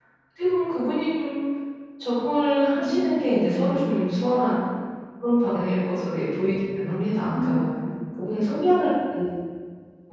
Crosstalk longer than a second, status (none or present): none